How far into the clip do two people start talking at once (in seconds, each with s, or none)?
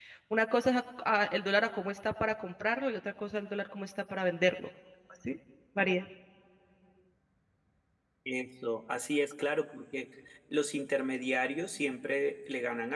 none